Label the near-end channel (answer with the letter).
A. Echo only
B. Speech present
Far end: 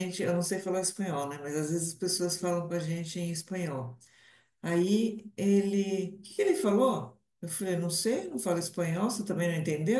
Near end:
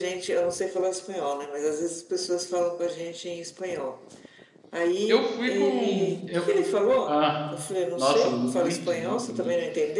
B